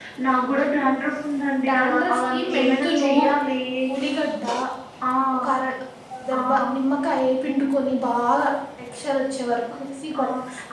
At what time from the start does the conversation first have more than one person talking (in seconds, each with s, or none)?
1.7 s